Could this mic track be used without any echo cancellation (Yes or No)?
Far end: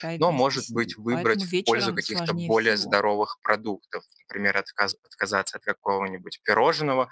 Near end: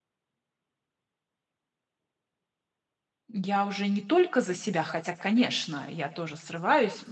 Yes